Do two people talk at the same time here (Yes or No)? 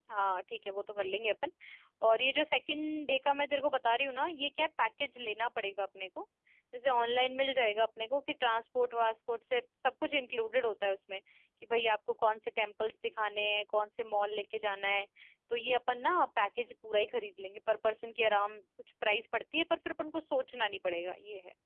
No